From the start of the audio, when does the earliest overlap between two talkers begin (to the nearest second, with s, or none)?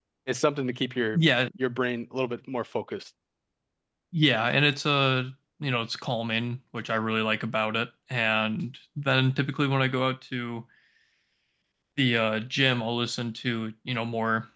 none